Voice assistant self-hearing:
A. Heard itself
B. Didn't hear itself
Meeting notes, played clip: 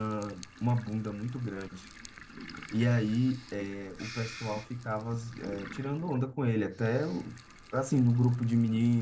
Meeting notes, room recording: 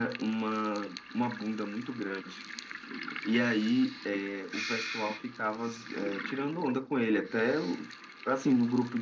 A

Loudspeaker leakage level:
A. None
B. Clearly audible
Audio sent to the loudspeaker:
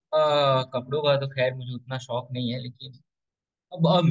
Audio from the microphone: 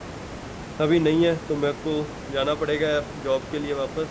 A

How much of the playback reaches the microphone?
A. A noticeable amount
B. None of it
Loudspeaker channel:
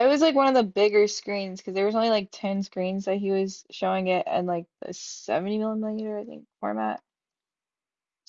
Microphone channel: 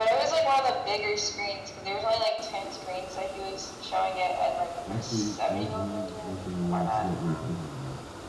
A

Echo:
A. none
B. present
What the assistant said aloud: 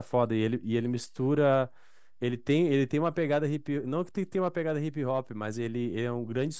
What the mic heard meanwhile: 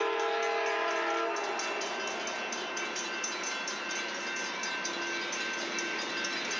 A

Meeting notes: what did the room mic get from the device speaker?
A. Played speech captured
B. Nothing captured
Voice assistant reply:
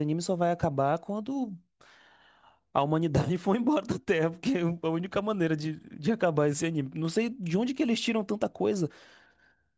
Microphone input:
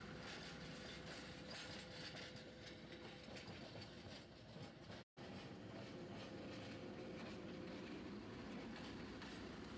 B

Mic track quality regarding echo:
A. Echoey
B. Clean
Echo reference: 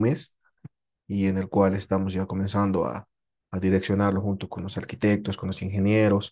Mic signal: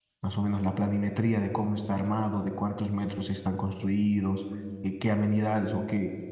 B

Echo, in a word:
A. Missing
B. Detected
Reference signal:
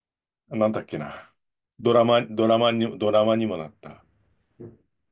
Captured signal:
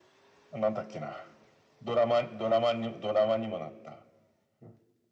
B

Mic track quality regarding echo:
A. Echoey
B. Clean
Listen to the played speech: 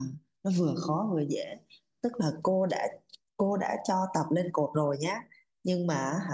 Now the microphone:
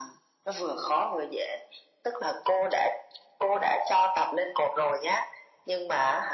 A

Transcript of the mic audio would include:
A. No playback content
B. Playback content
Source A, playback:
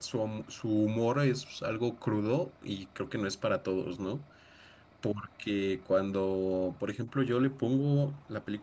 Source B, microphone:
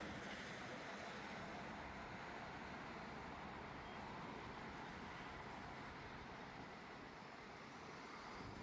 A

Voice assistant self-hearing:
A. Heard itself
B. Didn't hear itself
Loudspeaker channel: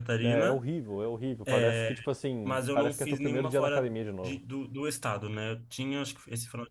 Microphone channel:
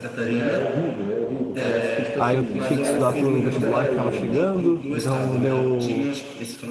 A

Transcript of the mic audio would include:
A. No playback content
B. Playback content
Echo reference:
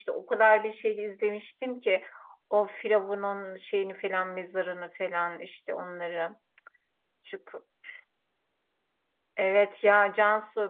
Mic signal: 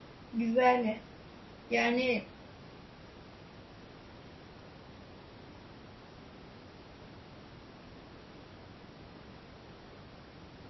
A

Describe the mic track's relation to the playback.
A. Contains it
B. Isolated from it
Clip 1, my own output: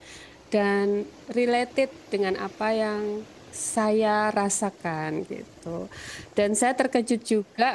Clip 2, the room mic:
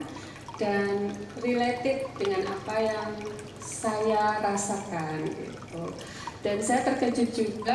A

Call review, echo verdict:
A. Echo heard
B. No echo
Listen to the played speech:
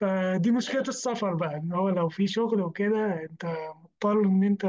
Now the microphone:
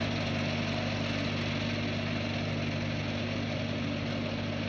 B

